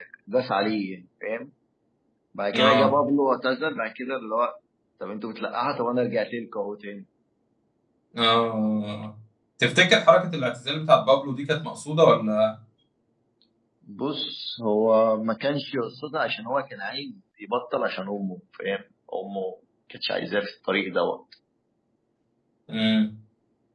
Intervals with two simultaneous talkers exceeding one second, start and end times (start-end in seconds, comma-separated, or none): none